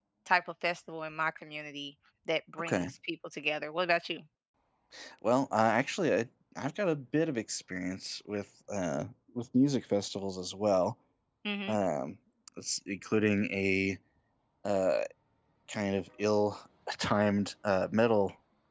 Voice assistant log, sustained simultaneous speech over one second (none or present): none